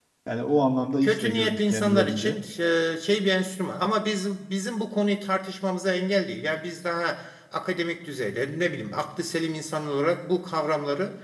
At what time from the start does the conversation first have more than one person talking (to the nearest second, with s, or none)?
1 s